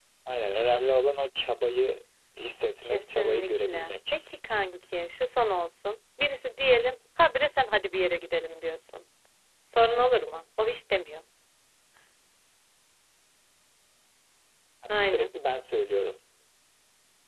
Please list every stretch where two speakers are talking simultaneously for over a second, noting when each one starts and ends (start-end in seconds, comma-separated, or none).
2.8-4.2